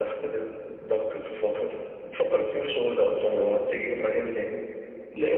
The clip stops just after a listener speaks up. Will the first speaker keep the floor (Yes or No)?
No